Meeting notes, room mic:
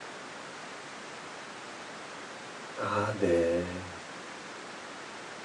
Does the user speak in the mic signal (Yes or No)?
Yes